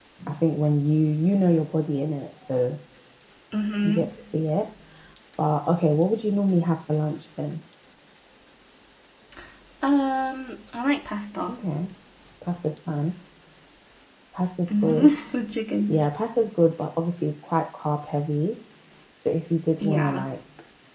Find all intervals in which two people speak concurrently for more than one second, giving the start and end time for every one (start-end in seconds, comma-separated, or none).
none